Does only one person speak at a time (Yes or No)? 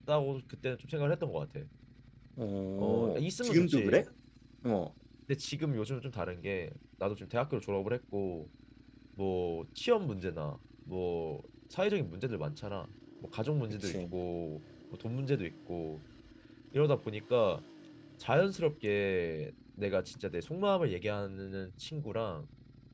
No